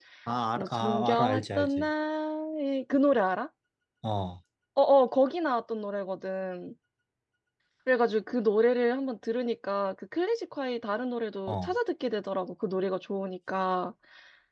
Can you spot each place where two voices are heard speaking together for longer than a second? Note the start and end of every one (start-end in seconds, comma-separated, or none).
0.6-1.9